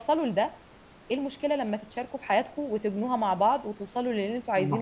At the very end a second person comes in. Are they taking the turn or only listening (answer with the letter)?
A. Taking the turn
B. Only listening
A